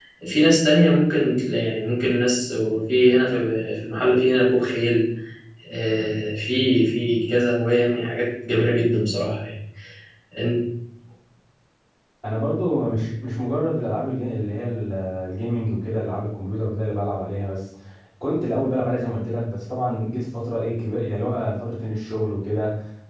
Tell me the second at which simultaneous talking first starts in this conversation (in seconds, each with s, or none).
none